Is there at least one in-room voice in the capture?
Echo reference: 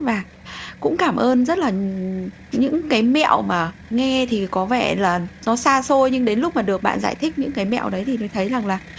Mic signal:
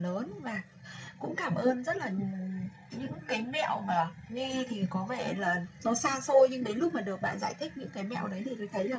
No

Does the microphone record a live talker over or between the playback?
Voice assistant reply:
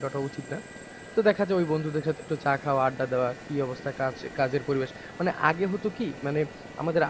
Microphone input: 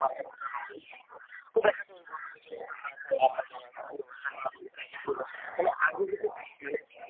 No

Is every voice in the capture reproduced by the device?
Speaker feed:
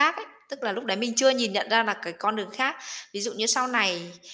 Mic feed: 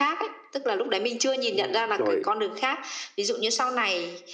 No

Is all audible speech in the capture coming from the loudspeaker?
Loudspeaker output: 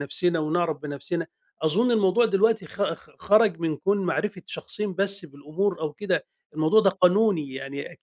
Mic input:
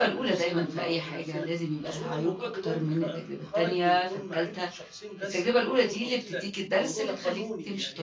No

